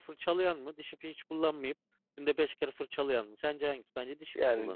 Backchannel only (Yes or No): No